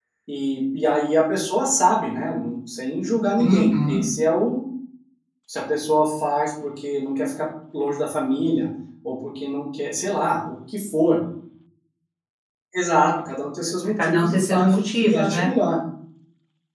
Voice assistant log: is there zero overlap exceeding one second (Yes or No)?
No